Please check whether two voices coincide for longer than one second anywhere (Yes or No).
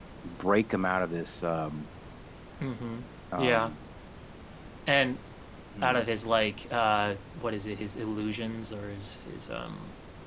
No